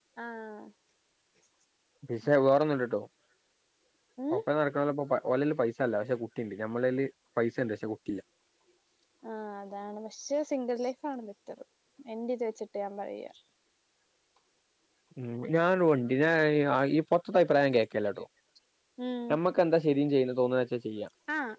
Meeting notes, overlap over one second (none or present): none